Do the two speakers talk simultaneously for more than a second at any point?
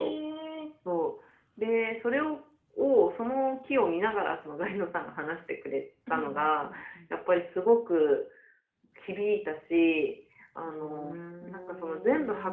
Yes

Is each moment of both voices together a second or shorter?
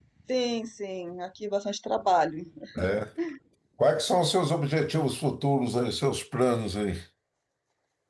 Yes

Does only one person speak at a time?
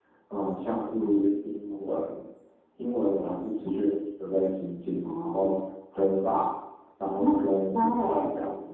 No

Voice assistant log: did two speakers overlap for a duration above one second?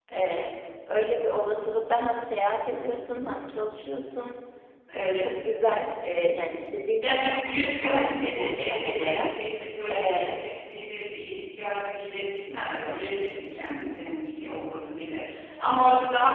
Yes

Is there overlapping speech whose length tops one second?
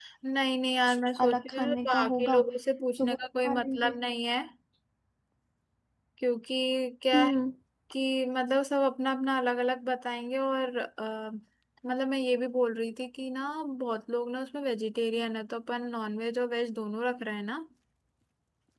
Yes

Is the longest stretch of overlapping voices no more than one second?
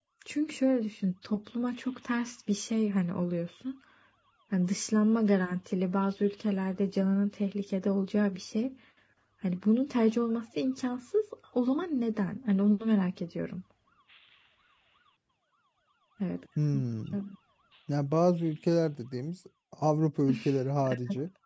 Yes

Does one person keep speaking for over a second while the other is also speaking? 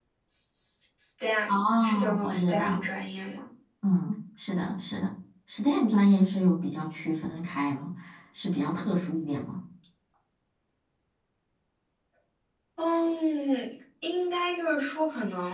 Yes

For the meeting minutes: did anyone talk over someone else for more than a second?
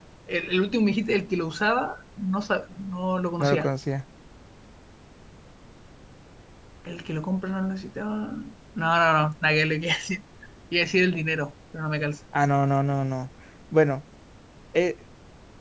No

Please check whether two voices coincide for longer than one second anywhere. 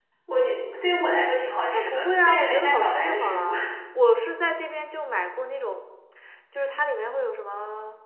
Yes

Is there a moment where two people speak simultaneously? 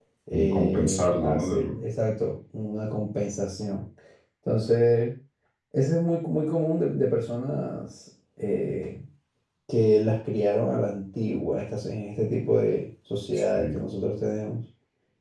Yes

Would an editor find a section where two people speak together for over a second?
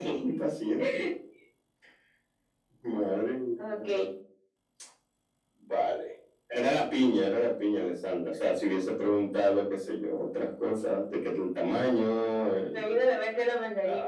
No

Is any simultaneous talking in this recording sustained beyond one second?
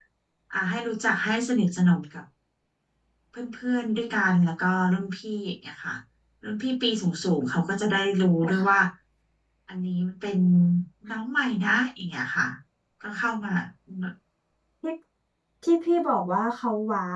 No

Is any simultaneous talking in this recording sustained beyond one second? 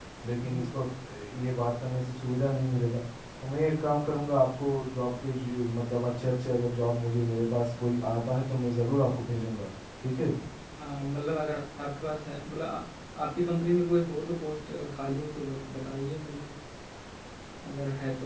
No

